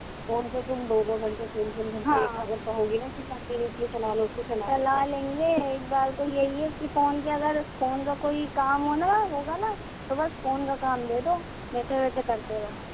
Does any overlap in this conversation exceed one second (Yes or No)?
No